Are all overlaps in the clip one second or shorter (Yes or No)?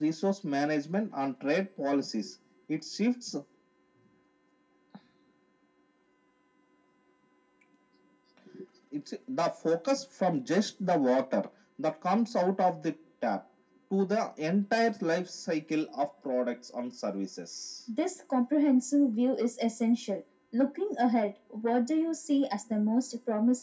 Yes